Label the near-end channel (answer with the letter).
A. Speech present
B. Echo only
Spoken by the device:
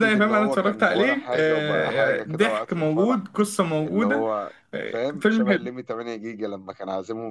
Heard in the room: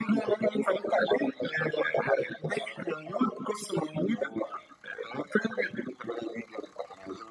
B